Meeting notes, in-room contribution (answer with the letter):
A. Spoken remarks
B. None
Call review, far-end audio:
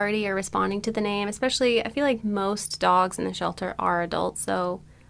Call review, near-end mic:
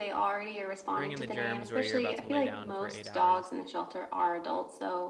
A